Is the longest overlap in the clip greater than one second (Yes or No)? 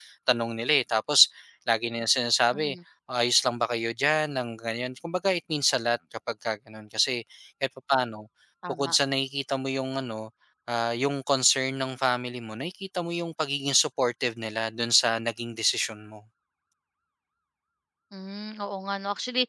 No